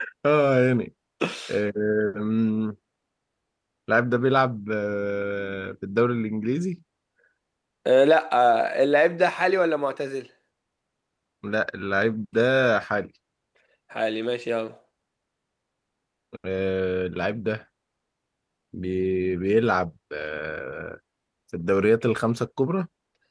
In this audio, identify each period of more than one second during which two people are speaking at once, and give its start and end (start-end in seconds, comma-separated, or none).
none